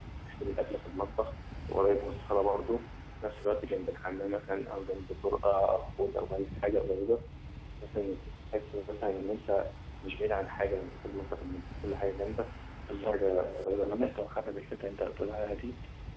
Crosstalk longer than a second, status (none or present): present